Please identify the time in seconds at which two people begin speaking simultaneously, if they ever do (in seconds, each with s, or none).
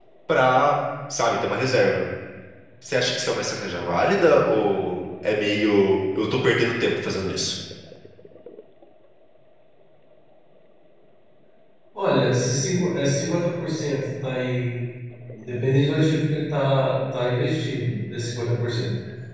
none